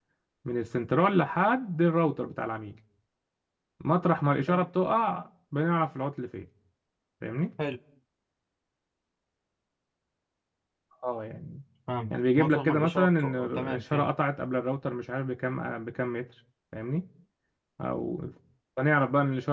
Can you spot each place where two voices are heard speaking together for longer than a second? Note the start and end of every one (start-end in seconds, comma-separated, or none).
12.1-14.1